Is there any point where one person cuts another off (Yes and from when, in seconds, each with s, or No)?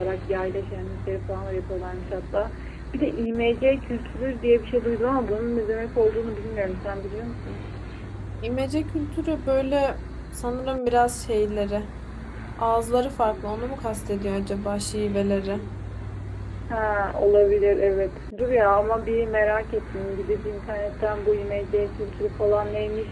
No